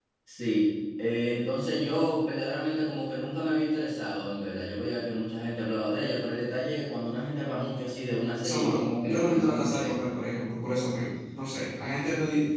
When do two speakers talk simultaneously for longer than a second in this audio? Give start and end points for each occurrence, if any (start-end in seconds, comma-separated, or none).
8.4-9.9